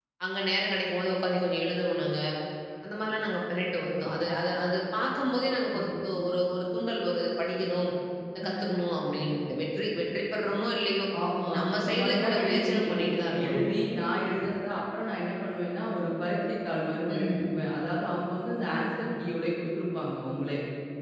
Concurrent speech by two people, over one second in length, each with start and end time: 11.6-13.1

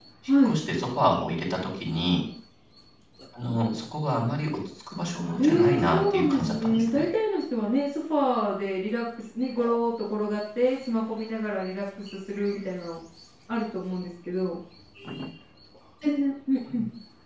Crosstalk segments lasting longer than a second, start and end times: 5.4-7.1

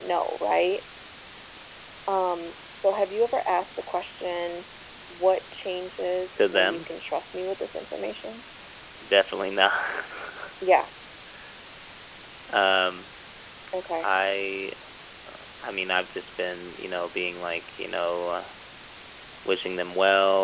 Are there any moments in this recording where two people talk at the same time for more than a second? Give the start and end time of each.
none

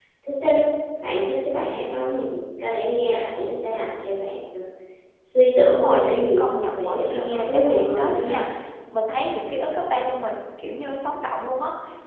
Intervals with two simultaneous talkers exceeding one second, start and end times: 5.6-8.4

